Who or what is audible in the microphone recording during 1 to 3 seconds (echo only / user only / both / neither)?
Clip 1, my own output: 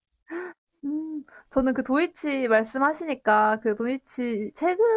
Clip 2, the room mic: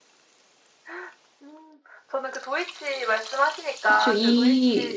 echo only